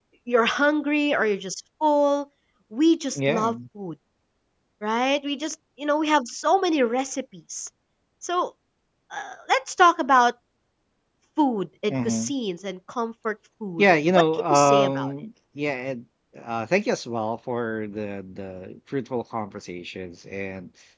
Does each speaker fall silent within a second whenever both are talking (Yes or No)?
No